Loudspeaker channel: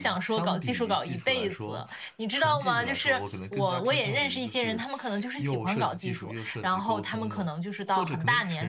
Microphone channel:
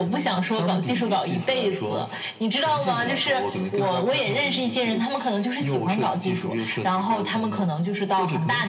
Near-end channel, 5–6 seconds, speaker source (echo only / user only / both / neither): echo only